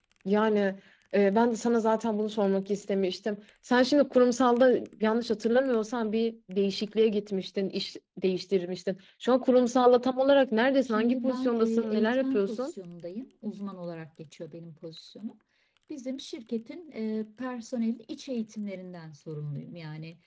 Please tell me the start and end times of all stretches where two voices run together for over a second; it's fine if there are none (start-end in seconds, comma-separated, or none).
10.9-12.7